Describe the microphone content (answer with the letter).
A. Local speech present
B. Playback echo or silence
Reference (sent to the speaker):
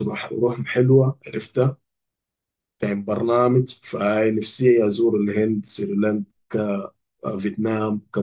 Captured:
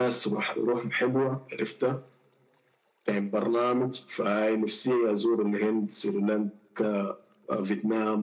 B